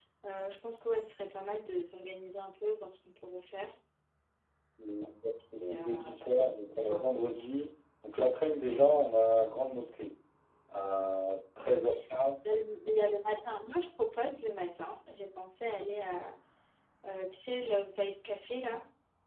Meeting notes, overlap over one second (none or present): present